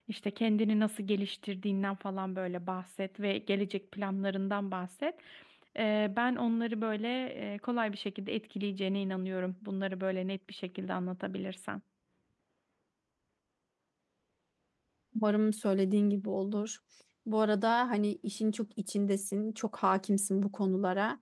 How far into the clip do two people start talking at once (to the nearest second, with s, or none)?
none